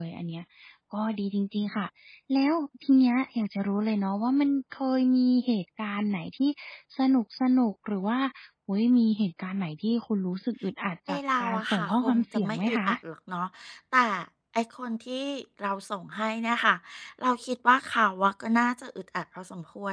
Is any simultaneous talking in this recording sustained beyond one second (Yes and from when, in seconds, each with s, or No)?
Yes, from 11.1 s